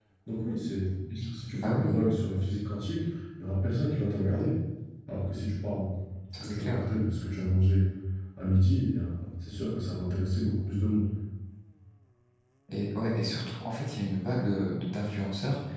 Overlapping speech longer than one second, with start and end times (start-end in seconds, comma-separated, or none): none